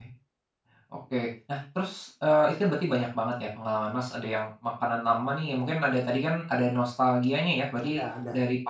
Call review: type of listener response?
listening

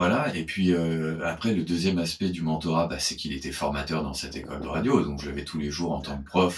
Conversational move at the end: listening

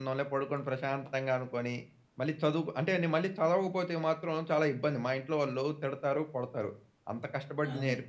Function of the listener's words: listening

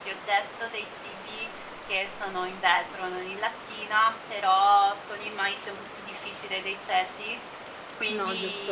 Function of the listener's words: listening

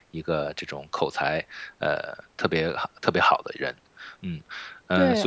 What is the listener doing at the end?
taking over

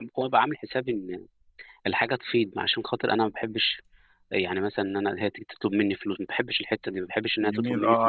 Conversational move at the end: taking over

